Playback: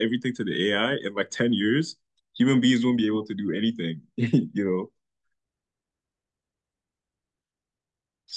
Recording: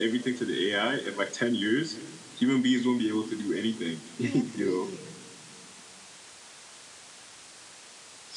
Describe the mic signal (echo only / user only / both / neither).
both